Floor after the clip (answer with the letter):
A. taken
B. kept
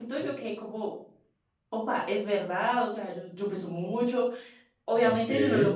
B